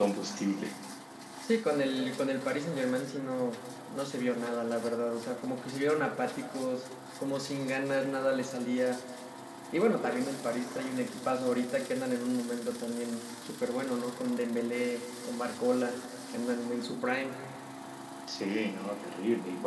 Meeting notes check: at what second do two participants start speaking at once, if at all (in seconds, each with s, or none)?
none